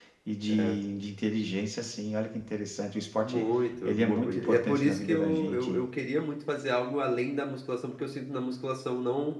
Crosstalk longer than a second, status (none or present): present